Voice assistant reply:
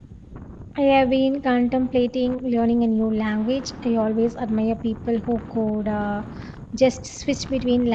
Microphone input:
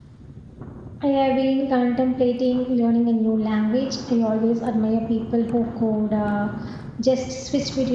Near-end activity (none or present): none